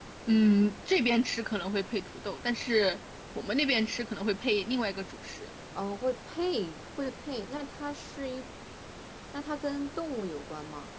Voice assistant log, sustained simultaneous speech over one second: none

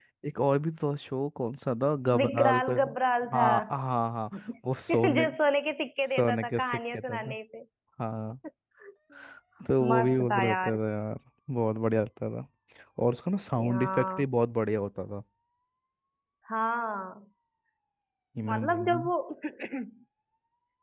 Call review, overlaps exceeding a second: present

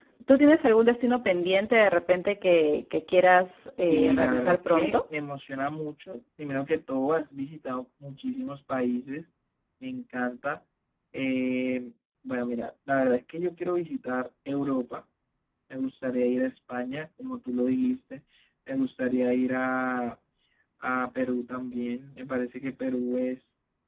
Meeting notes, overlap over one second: present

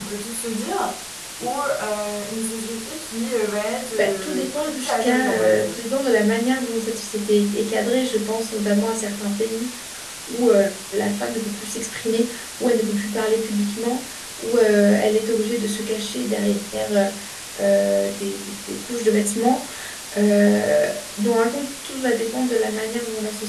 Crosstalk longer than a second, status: present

